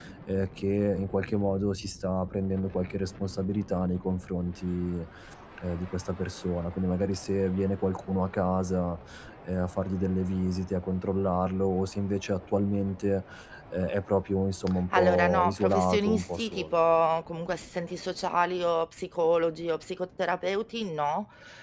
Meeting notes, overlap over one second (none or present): present